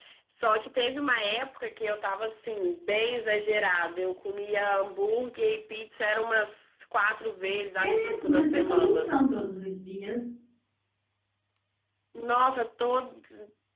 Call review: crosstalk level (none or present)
present